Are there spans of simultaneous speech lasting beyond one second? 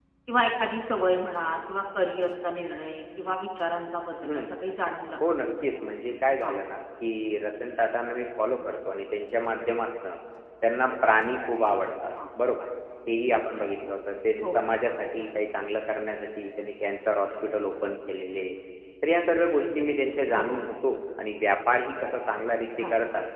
No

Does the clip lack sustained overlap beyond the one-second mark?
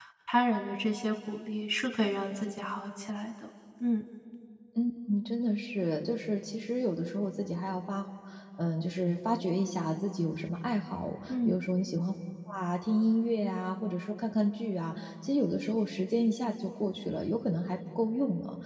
Yes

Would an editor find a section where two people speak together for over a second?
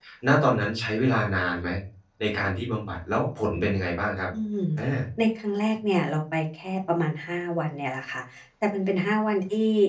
No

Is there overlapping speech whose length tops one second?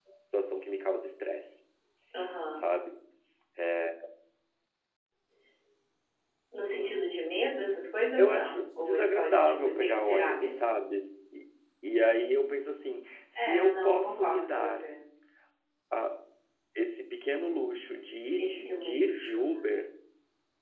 Yes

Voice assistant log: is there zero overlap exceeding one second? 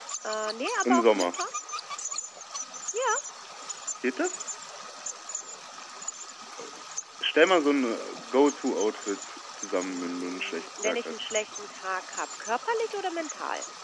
No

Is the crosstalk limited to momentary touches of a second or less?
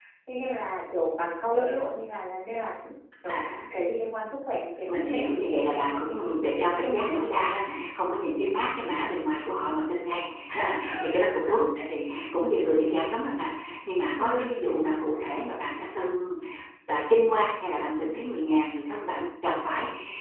No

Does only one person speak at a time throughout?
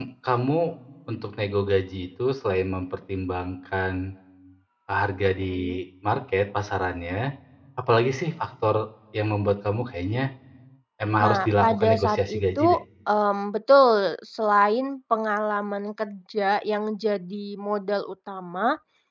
No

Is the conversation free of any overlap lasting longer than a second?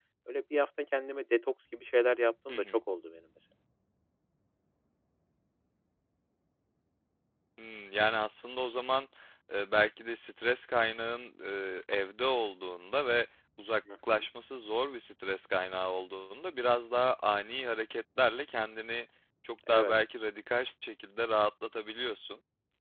Yes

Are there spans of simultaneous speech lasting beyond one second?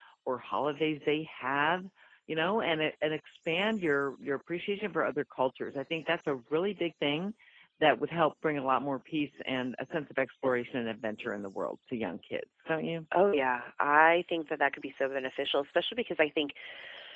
No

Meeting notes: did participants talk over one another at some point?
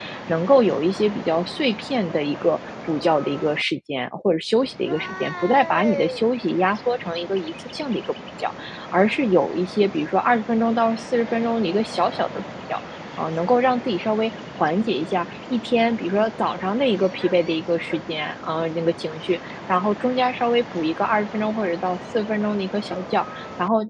No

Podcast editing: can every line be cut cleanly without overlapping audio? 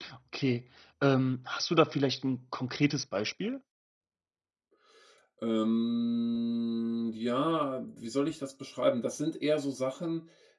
Yes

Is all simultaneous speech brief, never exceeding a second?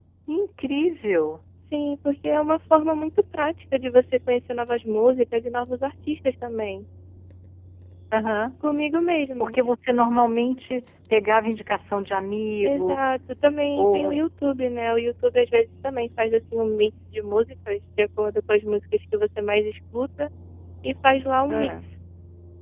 Yes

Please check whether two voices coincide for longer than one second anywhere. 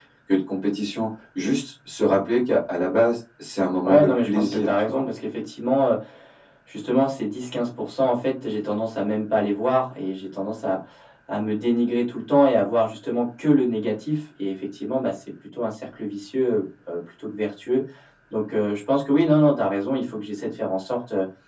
Yes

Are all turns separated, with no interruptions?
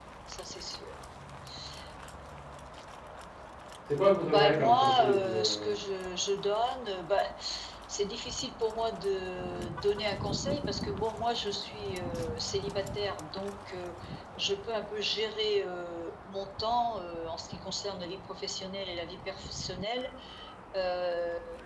No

